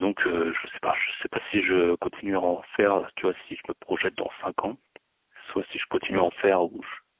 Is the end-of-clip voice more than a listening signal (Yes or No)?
No